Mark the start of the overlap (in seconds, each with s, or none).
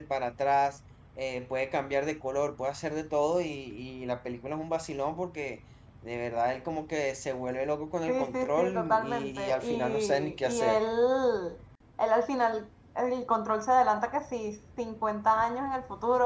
8.1 s